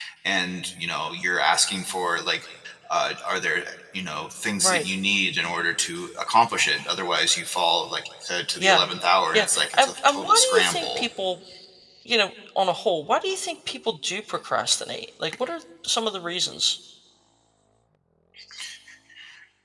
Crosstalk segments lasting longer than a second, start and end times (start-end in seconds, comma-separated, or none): 9.3-11.0